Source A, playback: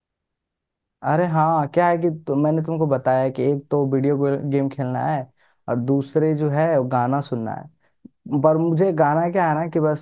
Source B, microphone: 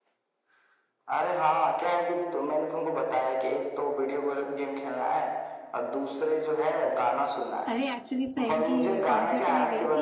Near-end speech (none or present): present